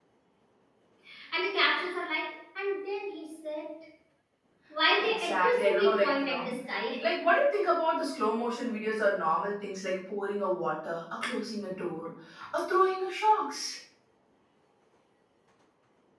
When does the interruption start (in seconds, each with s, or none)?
5.1 s